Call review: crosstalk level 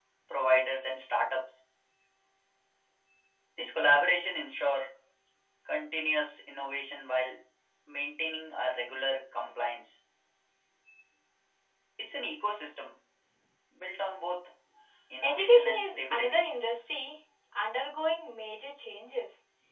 present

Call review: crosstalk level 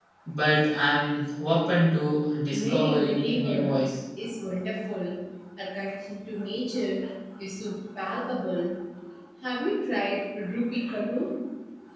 present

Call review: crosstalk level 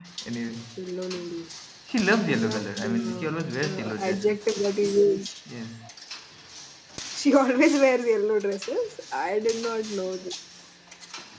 present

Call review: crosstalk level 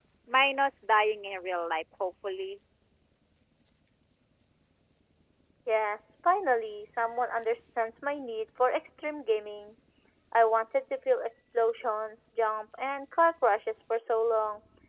none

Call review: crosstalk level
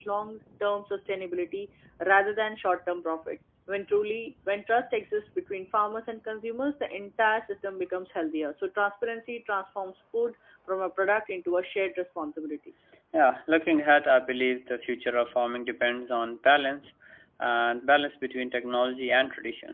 none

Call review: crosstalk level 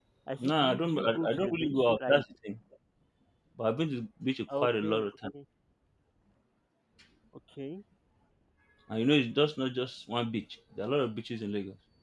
present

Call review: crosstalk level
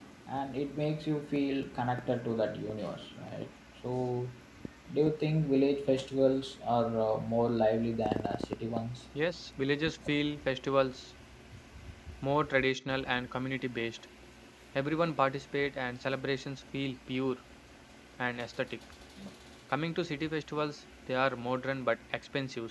none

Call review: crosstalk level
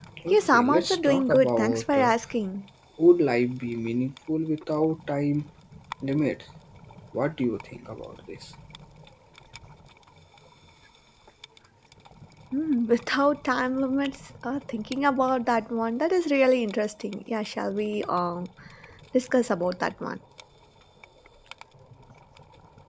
present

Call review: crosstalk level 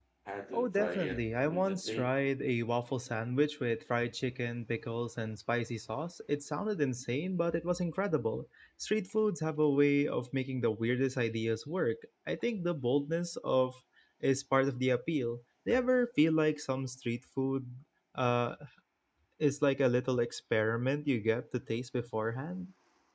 present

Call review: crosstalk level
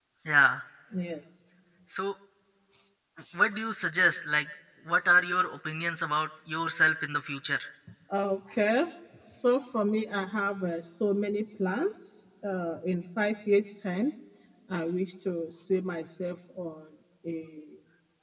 none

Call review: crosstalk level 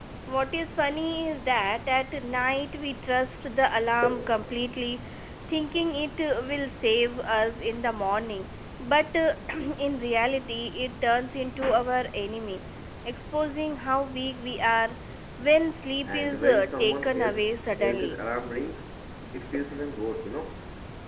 present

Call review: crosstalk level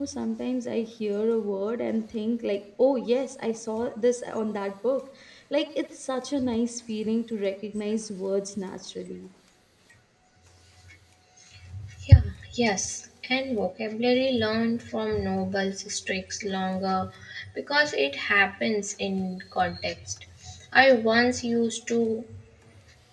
none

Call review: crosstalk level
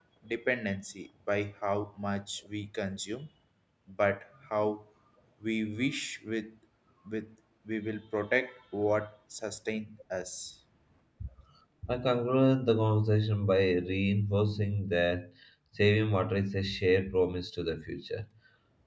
none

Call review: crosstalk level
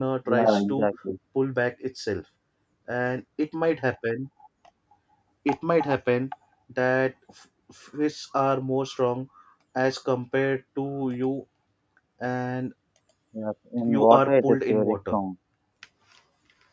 present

